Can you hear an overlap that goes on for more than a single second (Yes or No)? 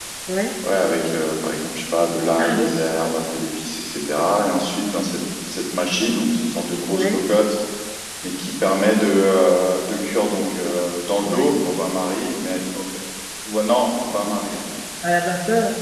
No